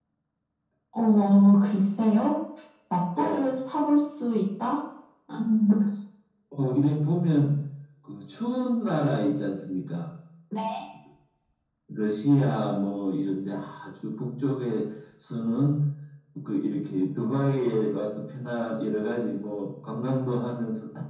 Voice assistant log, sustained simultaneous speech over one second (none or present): none